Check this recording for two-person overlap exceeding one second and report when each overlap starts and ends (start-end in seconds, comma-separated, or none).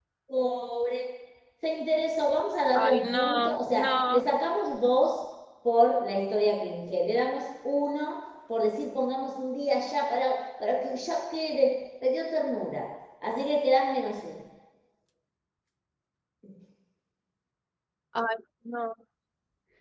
2.7-4.2